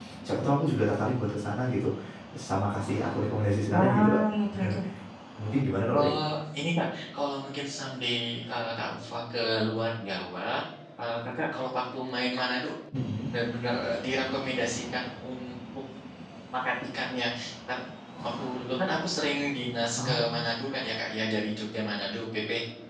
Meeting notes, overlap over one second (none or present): none